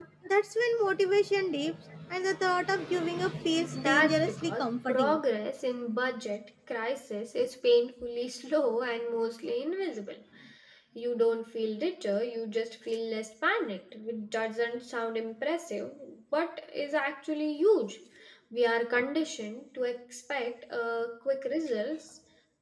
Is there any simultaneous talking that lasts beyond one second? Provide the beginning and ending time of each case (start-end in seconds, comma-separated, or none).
3.7-5.2